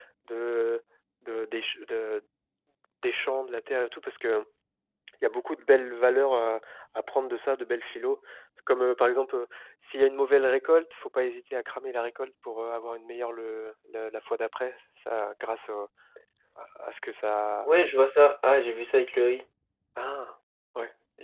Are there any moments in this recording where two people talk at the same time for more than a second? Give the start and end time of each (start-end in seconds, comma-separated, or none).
none